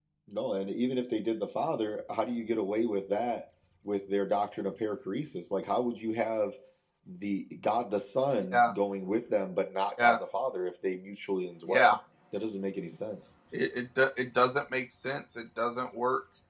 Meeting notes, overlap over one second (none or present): none